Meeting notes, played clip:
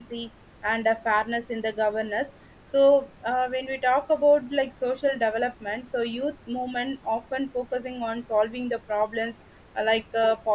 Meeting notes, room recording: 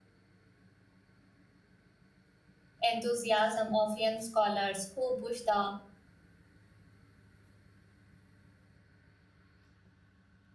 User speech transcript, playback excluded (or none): enthusiasm of young scholars who push the